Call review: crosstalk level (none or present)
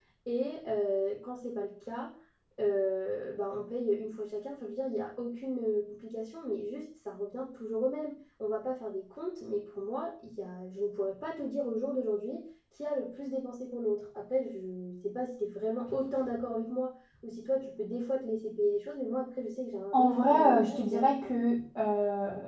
present